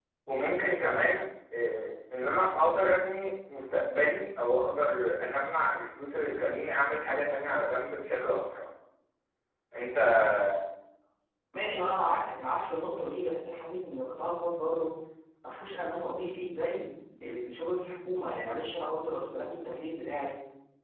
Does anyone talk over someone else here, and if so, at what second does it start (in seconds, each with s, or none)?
none